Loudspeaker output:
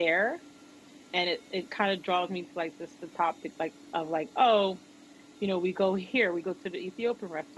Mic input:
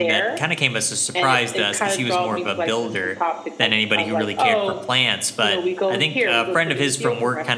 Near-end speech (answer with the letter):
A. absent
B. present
B